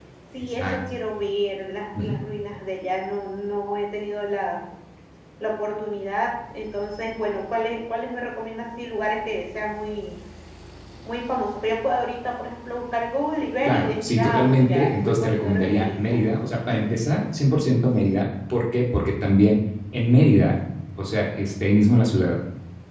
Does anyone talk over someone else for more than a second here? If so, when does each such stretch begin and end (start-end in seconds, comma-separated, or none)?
13.6-16.2